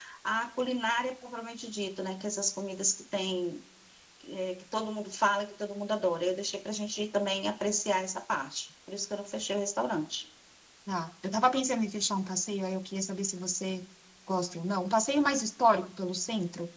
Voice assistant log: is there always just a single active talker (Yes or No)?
Yes